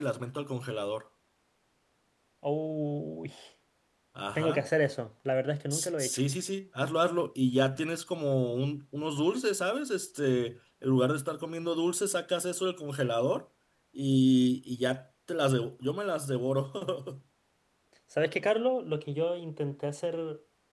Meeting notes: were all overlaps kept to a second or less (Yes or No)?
Yes